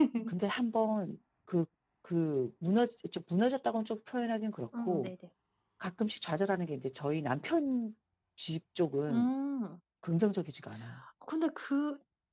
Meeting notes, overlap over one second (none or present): none